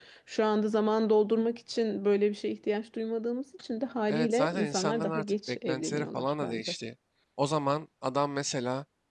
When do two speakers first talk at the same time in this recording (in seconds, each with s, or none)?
4.1 s